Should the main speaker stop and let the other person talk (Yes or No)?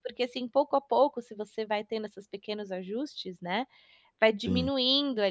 No